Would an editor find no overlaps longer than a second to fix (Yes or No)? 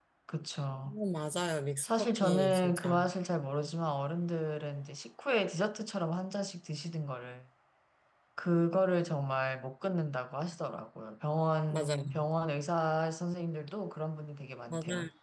No